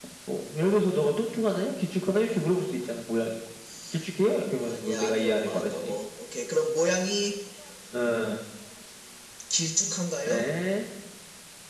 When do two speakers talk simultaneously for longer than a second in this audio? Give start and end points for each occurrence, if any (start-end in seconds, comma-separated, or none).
4.6-6.0